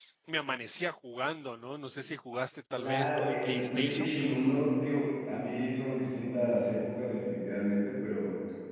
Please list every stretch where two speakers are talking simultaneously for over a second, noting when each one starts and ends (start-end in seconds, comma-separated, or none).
2.7-4.2